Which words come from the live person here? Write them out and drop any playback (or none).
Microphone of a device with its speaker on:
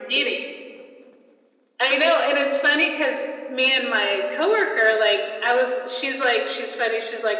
none